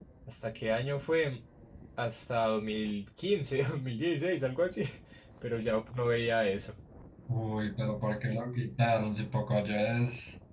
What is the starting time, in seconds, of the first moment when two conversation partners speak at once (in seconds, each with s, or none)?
none